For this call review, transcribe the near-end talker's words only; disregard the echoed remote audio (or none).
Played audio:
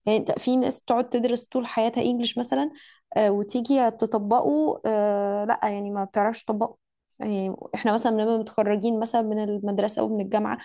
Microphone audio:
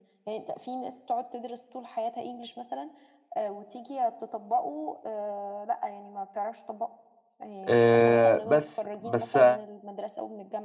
آه، بس بس